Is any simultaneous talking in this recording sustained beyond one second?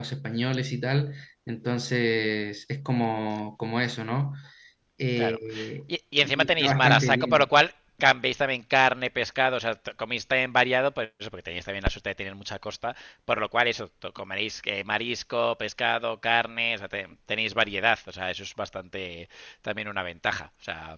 Yes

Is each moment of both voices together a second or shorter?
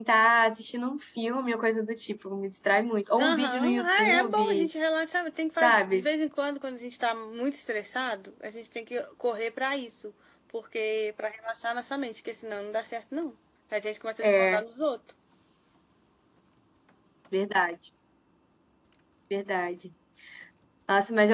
No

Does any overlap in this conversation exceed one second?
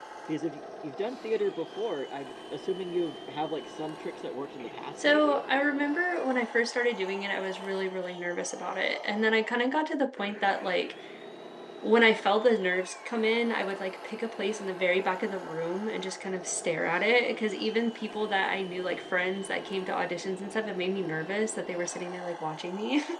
No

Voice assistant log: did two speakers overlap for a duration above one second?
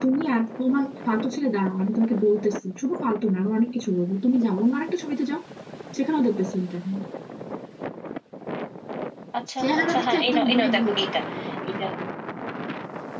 Yes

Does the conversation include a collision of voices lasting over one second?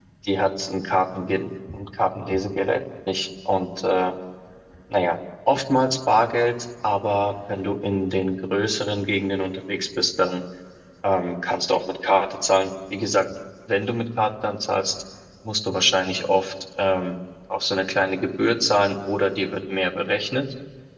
No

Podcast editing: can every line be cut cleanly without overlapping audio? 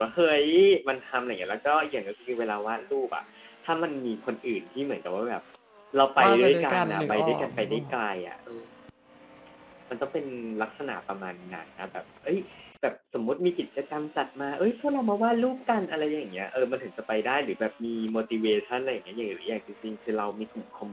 No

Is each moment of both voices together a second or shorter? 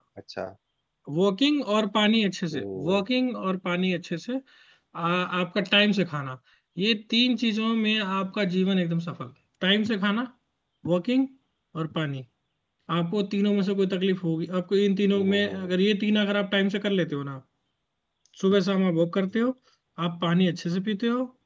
Yes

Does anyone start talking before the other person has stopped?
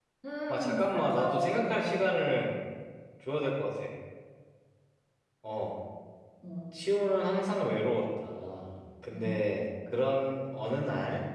Yes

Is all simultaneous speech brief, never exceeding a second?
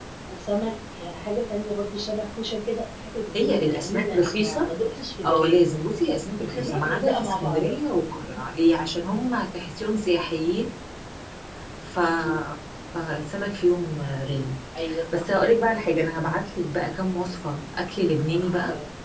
No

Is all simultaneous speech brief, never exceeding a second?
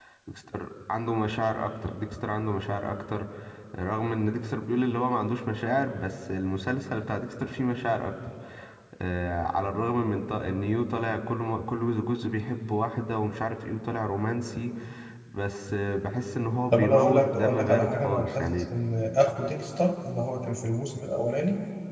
No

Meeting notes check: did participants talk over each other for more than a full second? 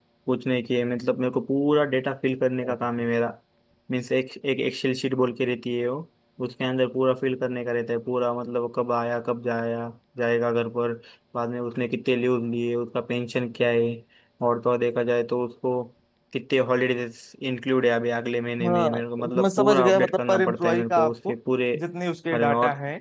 Yes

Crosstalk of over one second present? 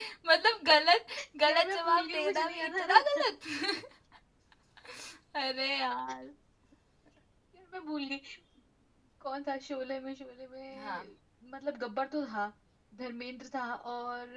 Yes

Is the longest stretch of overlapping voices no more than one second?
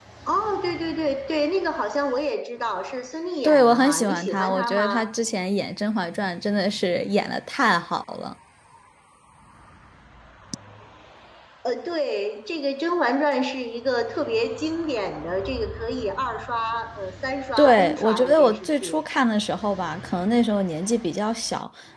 No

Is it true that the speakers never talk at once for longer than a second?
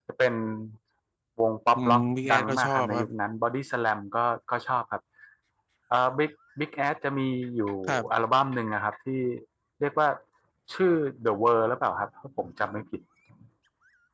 No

